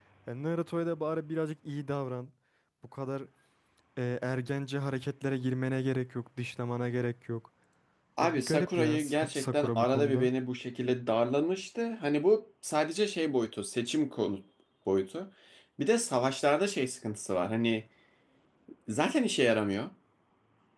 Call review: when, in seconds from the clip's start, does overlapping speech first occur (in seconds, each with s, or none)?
8.2 s